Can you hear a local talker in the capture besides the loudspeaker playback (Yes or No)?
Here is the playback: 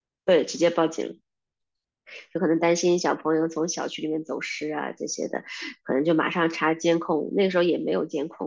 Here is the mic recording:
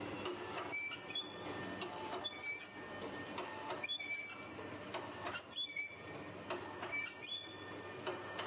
No